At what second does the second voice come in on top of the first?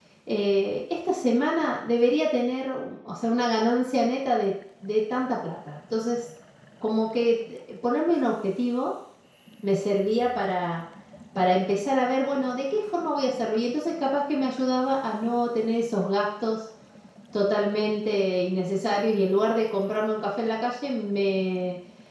none

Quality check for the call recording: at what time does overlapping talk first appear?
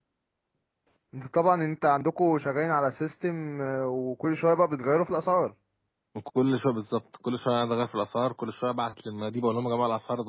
none

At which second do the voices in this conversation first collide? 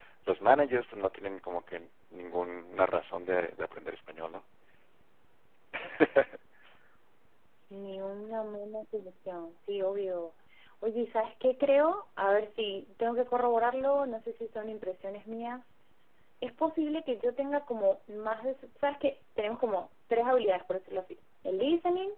none

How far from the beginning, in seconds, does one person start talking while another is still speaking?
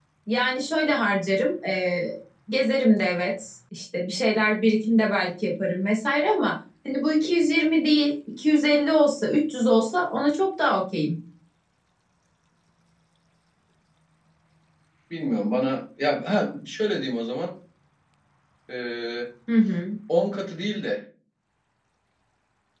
none

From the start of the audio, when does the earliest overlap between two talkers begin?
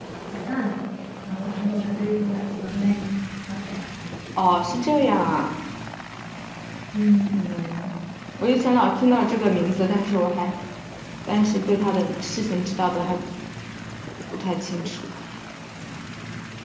none

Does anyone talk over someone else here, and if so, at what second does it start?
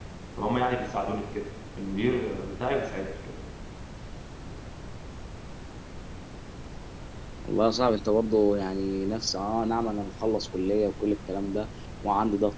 none

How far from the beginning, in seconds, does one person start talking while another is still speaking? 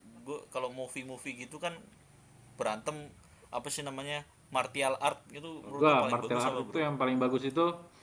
5.6 s

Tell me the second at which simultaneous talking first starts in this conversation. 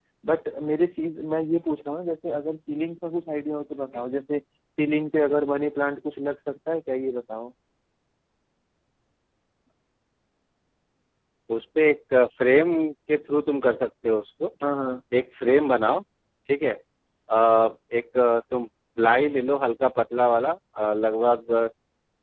none

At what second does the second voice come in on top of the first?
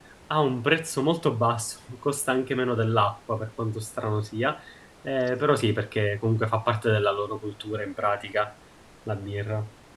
none

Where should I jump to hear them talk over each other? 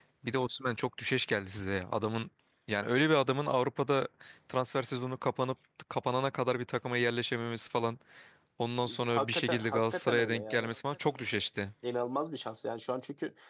9.1 s

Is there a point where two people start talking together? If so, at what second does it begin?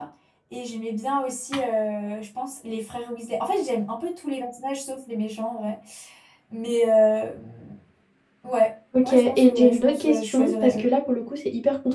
9.0 s

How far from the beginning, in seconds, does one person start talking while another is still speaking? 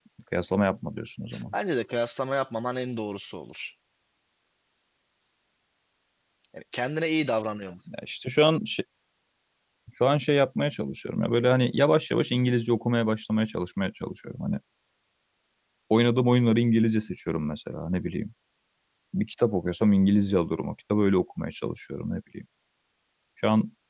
none

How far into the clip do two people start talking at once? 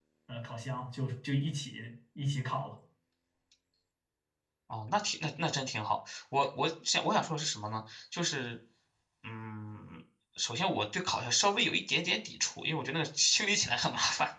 none

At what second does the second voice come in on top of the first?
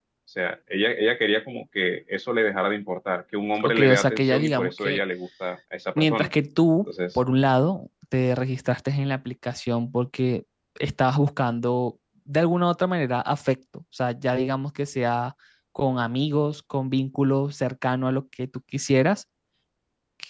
3.6 s

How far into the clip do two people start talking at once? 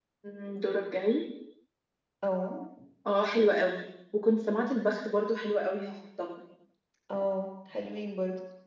none

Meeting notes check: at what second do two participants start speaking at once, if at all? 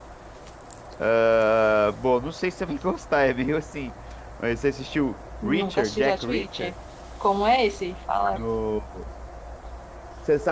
5.4 s

